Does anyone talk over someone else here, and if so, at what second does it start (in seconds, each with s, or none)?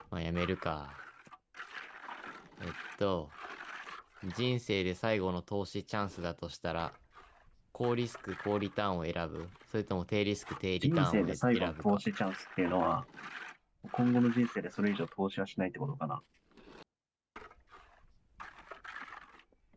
10.8 s